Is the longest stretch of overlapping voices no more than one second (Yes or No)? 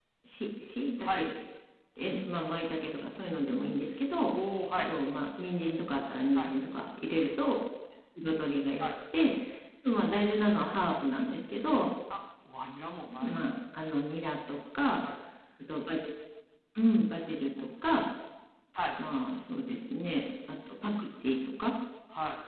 Yes